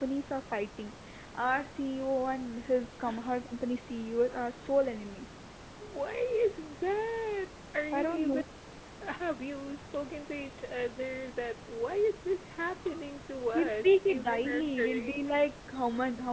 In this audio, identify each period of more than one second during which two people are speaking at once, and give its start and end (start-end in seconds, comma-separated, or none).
13.5-15.1